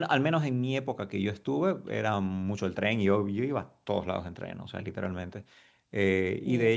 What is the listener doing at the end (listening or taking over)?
listening